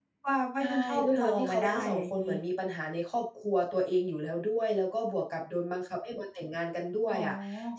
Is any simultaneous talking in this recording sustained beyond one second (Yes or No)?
Yes